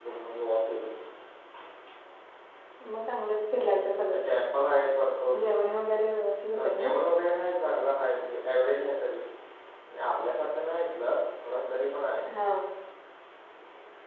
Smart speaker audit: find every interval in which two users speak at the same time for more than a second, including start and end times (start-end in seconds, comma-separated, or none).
none